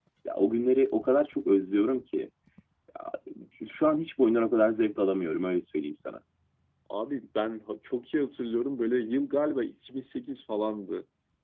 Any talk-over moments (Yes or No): No